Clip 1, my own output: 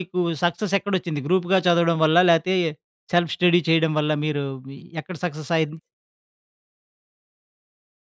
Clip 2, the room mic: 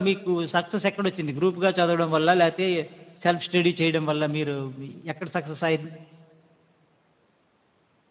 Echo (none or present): present